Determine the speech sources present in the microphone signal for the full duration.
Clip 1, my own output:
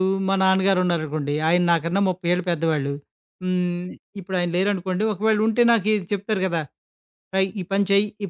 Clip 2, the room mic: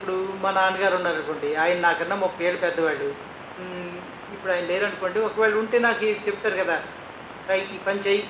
echo only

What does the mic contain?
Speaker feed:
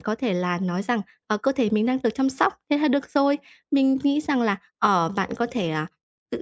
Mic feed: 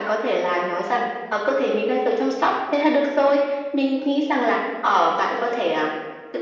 echo only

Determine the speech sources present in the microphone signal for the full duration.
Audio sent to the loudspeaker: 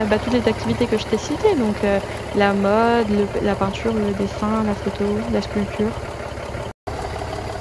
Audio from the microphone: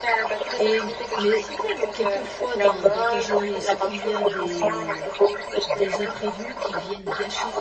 both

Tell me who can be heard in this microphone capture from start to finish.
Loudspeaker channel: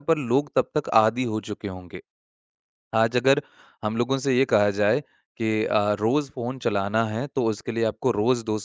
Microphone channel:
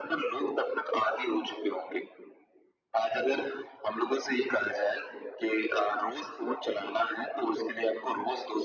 echo only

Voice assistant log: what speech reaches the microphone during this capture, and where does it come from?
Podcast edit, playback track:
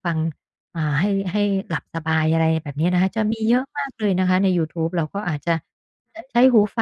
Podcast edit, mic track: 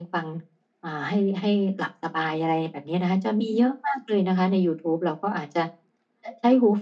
echo only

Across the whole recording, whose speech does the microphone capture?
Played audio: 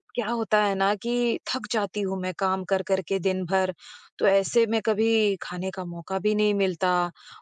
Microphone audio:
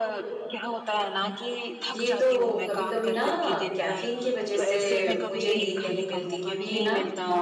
both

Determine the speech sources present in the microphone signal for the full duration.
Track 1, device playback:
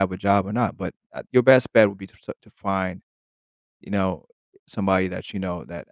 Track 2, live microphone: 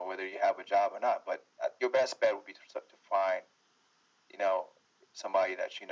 echo only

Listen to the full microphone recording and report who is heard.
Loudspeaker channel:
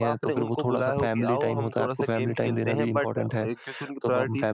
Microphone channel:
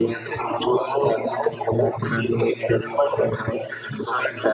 echo only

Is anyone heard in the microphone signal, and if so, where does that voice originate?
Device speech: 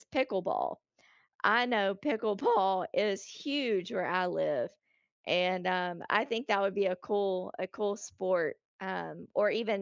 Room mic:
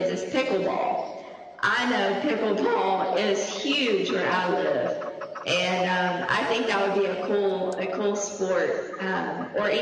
echo only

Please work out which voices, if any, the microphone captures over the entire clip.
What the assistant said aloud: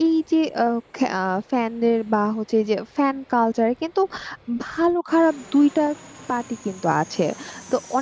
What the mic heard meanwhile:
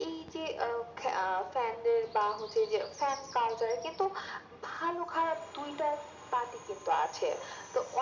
echo only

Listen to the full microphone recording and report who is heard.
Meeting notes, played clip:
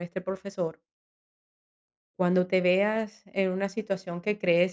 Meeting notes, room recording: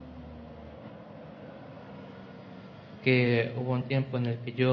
user only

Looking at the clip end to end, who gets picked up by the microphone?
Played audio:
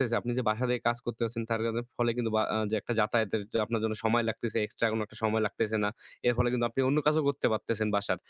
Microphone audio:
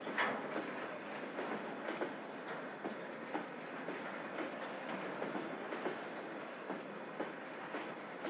neither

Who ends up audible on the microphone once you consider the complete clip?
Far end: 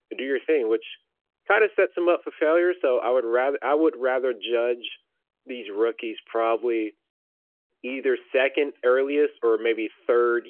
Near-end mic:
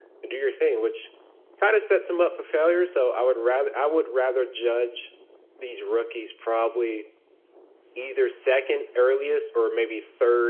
echo only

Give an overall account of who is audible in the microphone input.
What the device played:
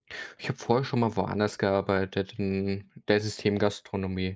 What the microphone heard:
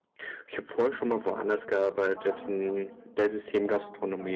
both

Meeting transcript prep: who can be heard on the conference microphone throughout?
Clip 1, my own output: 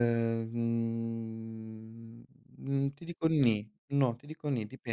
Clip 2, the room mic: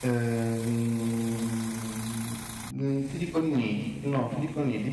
echo only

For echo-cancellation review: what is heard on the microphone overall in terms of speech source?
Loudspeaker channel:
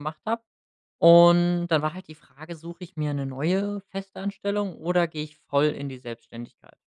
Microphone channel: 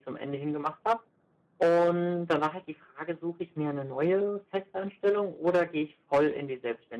echo only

